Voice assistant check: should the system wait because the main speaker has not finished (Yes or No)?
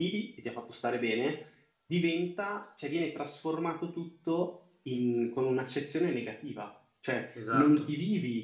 Yes